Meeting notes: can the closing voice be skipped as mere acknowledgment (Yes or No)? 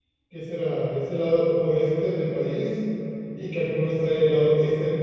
Yes